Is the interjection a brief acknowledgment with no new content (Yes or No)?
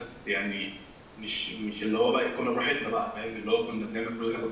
Yes